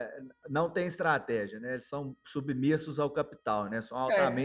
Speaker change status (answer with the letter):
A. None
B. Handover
B